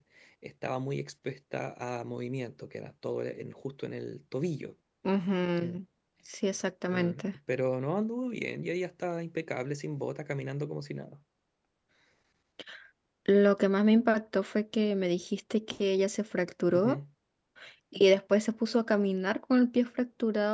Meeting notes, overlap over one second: none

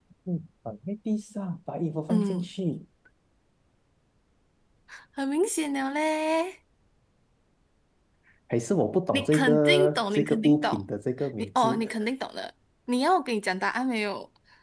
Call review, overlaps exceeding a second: present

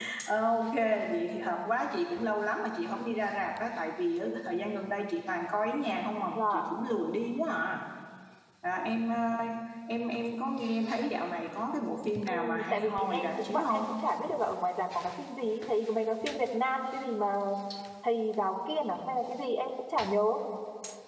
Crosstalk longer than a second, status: present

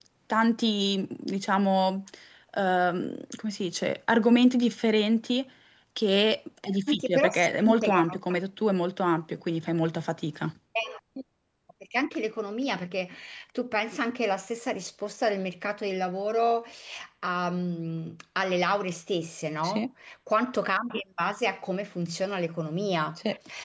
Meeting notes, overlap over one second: present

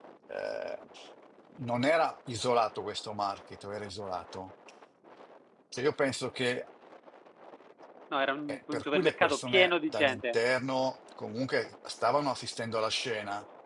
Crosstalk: present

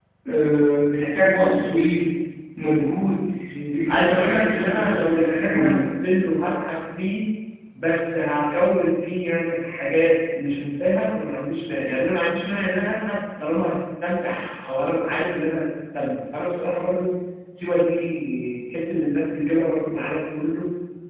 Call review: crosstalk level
present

